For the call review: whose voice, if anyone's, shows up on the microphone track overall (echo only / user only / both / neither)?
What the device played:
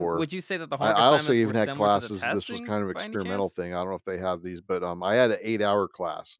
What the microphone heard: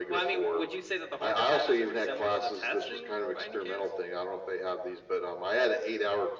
echo only